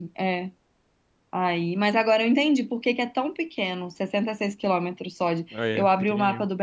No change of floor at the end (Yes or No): Yes